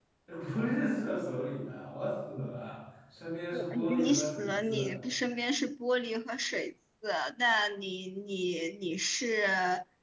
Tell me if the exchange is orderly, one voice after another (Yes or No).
No